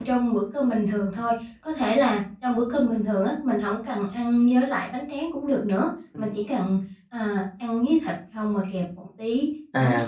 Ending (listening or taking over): taking over